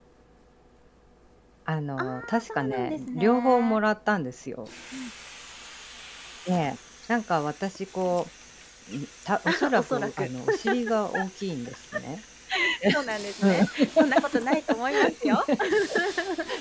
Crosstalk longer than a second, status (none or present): present